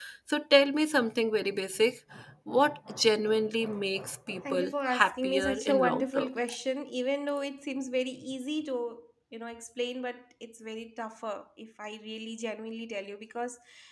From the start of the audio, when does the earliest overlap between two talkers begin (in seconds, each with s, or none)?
4.5 s